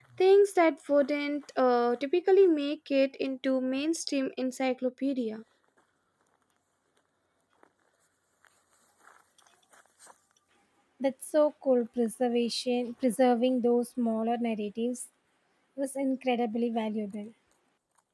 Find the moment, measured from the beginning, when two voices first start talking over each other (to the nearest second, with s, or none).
none